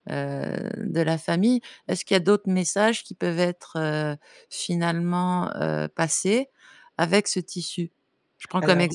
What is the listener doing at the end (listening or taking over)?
listening